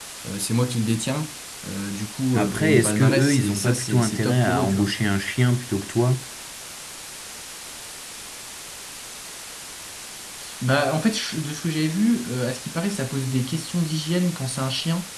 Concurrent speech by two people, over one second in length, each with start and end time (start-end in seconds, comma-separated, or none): 2.3-4.9